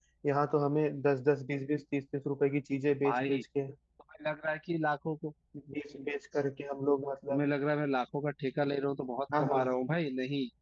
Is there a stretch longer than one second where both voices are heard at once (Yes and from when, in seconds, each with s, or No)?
No